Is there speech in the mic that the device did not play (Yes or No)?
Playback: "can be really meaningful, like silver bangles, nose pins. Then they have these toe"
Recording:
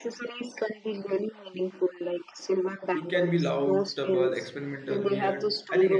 Yes